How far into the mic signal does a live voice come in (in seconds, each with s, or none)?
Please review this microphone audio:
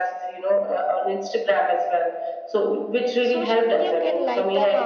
3.2 s